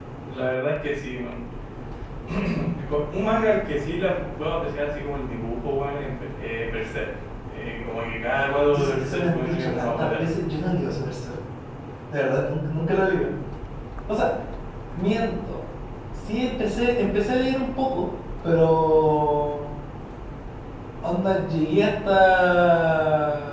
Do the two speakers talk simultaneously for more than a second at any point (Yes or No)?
Yes